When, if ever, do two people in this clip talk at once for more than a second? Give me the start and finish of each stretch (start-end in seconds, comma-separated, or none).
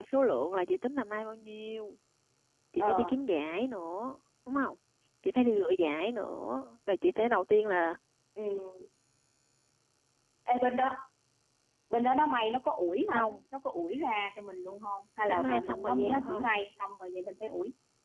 15.3-16.5